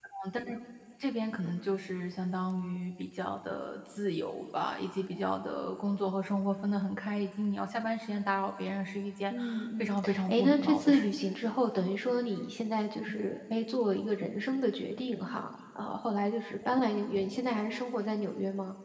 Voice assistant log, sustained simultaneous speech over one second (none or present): present